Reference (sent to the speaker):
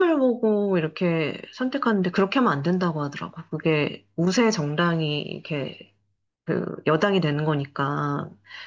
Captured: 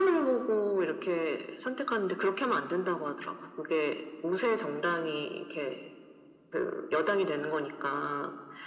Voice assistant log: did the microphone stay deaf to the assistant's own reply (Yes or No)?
No